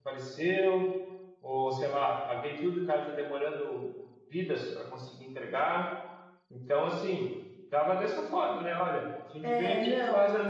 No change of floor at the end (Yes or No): Yes